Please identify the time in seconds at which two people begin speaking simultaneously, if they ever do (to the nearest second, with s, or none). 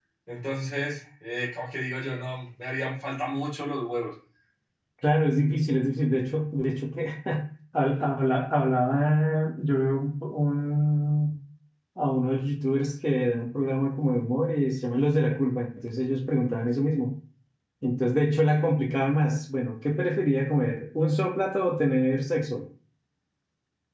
none